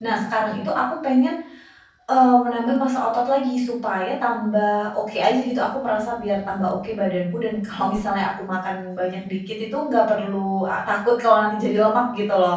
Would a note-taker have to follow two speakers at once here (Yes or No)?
No